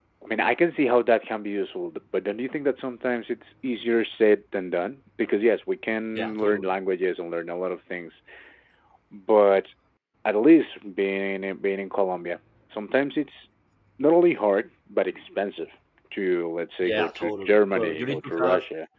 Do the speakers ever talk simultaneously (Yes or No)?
Yes